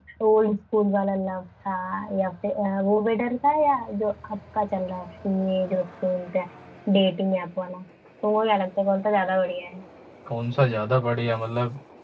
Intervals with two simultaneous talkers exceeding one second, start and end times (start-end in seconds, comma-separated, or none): none